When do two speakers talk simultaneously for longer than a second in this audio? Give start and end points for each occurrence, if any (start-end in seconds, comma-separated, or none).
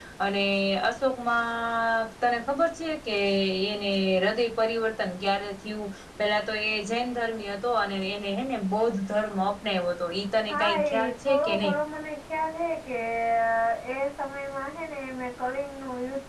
10.5-11.7